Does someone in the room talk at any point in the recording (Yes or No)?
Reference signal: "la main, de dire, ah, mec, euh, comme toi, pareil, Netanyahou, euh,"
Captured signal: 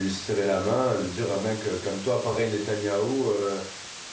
No